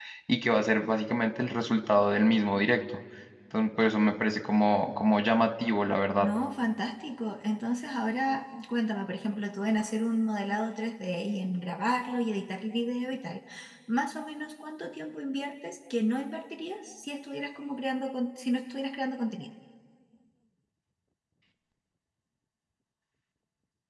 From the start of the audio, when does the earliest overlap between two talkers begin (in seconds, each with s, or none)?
none